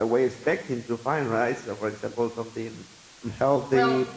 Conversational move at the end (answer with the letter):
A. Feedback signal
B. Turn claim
A